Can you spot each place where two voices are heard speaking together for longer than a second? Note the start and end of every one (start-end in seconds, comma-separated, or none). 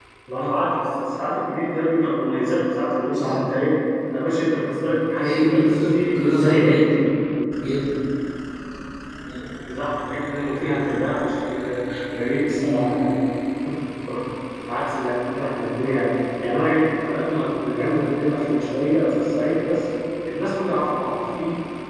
5.2-6.9